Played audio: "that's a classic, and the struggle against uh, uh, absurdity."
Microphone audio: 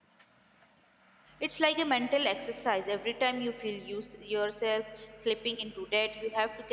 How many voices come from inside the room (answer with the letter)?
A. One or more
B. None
A